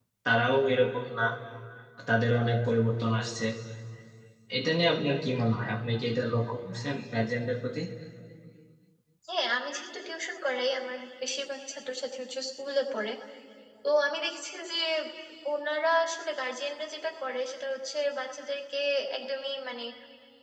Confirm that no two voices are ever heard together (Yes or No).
Yes